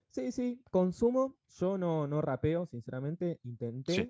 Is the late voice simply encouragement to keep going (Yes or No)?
Yes